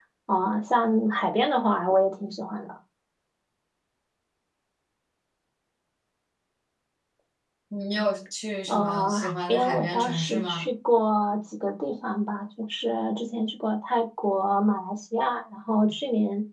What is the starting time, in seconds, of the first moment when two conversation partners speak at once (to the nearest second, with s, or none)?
9 s